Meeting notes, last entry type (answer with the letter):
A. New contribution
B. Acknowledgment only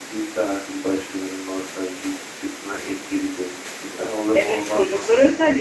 A